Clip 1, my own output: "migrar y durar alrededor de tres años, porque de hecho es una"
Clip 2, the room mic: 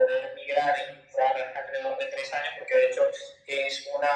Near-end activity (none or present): none